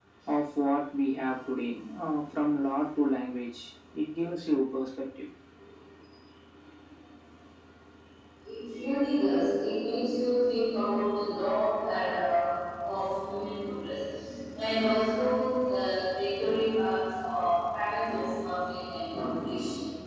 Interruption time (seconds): none

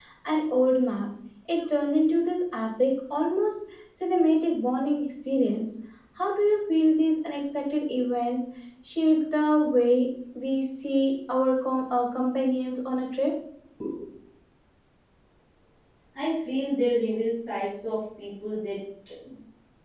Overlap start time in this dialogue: none

